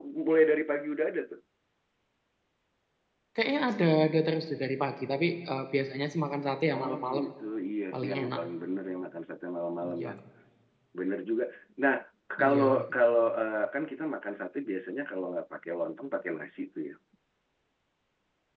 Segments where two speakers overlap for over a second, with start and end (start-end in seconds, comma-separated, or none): none